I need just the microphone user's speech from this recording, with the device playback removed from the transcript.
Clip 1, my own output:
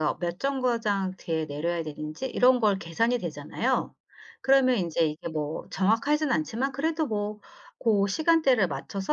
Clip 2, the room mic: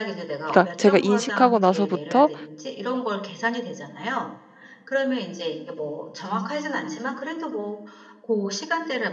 그러니까 제가 인식하고 나서부터

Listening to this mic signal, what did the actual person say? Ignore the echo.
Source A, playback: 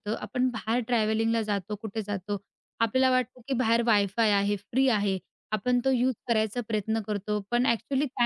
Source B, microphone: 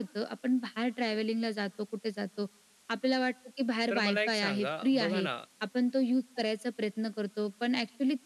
तर मला एक सांगा, बघा ना,

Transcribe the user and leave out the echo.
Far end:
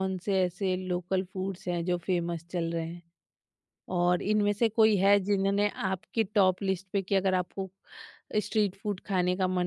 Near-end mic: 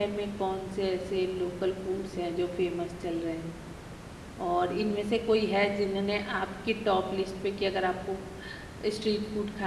none

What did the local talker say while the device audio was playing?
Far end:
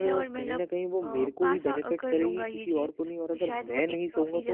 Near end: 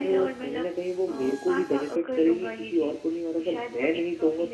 none

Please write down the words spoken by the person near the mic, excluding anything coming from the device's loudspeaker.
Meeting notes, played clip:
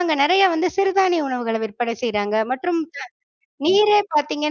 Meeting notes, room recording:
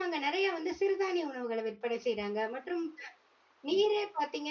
none

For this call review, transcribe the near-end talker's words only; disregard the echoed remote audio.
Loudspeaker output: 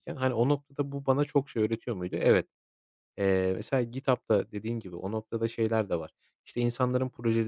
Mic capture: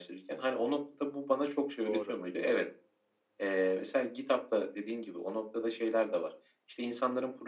Doğru.

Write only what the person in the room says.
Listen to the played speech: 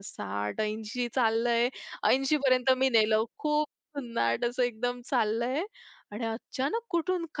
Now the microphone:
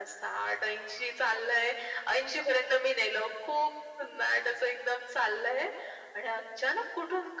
none

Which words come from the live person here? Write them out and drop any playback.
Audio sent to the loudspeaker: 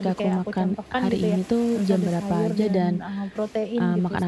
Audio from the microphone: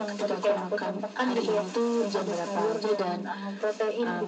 none

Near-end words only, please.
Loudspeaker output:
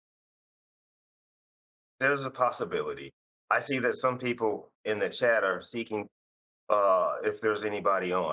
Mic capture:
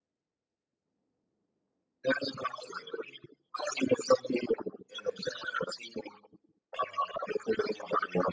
none

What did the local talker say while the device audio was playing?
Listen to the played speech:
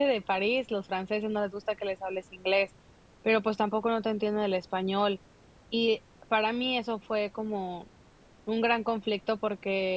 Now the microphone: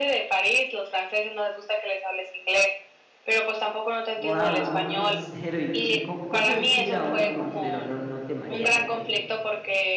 Wow, un crucero y co co ¿cómo es ir a un crucero? ¿No no te mareas?

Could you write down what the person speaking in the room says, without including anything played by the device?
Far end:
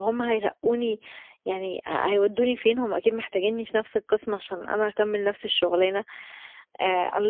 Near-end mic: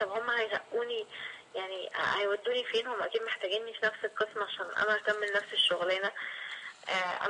none

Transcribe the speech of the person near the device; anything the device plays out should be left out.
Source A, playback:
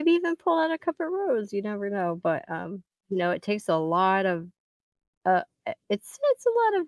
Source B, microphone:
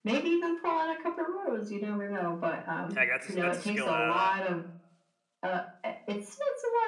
Heck, that's a, s- that's a skill that

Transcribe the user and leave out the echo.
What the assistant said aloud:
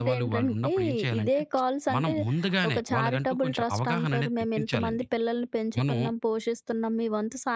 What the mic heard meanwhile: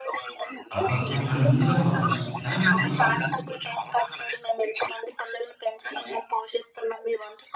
అబద్ధం అని ముందుగా మనం అర్థం చేసుకోవాలి. దానికి సంబంధించి

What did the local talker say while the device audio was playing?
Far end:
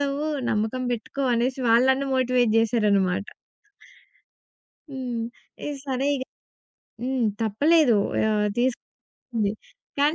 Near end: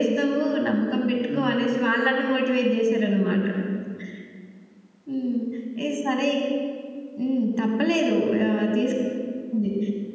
హ్మ్. హ్మ్.

